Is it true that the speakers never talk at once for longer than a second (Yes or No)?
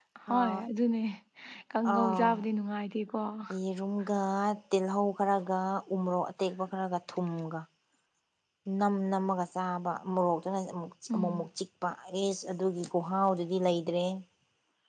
Yes